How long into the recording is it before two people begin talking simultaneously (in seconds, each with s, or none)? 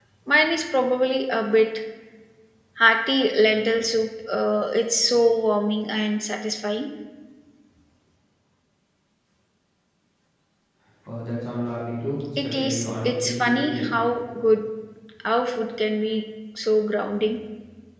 12.4 s